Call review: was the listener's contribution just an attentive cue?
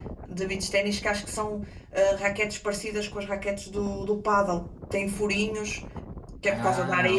Yes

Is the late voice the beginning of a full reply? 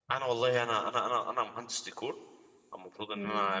No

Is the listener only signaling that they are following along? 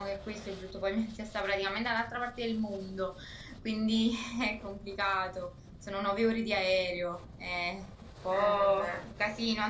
Yes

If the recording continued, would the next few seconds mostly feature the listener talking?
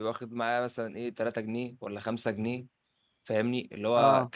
No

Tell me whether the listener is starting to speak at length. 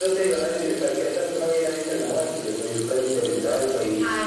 No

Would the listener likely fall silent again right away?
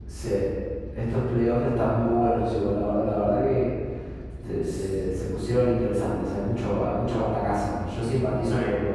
Yes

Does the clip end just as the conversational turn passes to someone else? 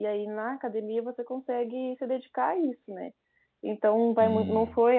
No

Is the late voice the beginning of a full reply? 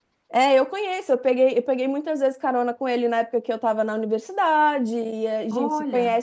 No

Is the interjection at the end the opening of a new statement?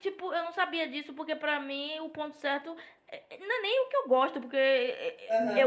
No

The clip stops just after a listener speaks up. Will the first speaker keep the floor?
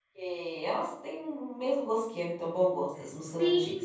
No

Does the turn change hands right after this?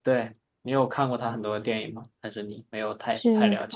Yes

